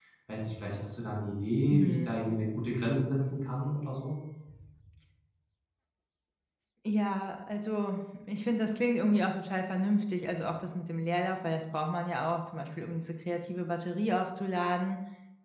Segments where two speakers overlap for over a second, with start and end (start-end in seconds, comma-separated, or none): none